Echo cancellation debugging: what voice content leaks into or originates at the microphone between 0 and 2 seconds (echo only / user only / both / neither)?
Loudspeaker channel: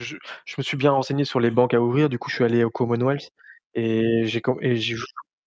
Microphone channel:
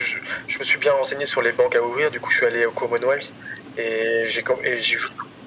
echo only